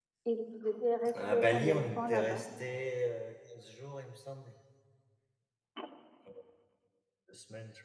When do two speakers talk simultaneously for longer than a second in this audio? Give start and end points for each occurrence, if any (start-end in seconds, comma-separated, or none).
1.1-2.5